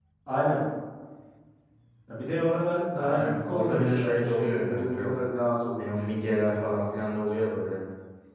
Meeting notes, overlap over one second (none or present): present